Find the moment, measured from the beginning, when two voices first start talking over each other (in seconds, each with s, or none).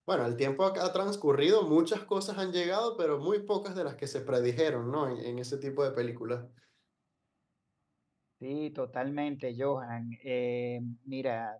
none